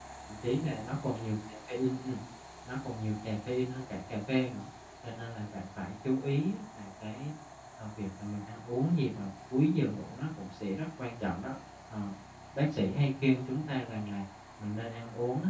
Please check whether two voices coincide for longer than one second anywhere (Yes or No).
No